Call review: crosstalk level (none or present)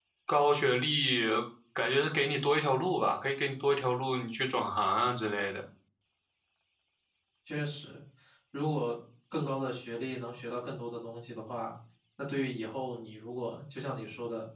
none